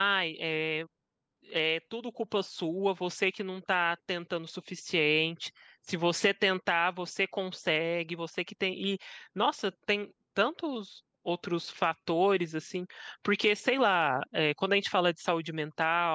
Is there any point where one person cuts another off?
No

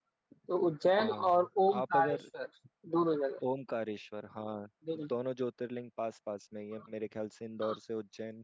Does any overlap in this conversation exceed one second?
Yes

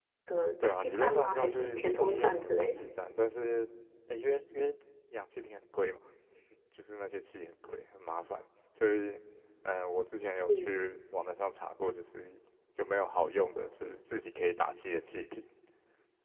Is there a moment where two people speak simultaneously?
Yes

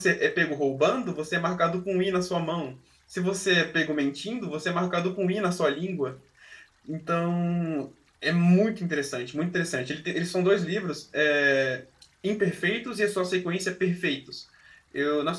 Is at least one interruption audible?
No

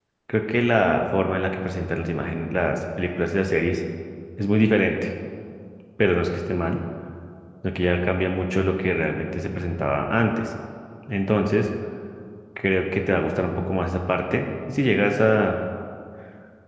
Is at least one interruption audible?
No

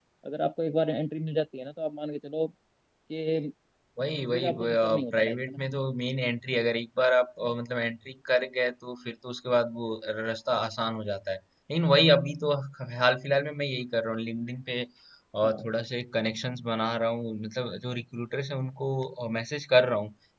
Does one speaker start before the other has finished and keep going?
Yes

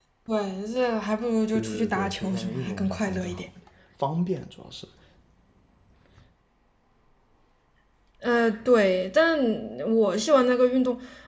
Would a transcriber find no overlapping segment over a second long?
No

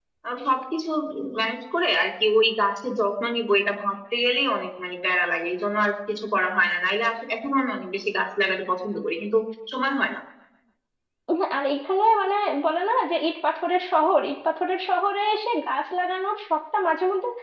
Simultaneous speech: No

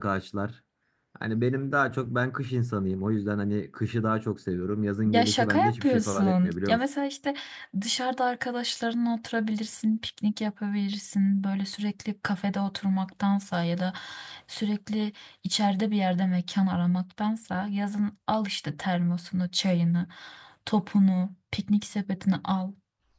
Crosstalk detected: Yes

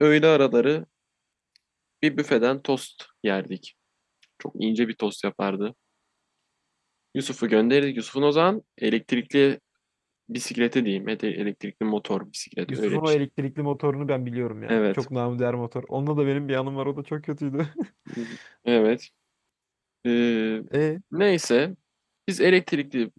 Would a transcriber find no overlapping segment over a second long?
Yes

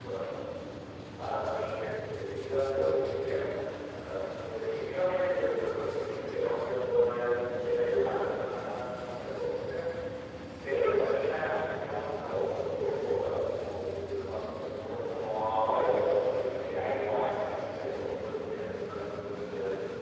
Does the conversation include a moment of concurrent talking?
No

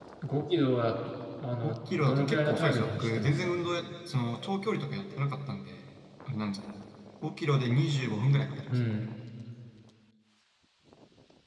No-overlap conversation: No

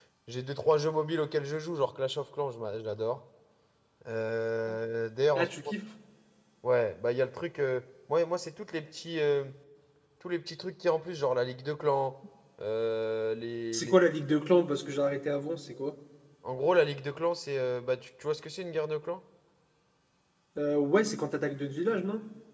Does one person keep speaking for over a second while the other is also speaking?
No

